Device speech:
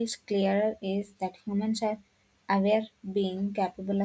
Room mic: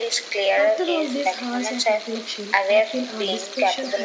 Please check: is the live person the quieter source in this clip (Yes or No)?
Yes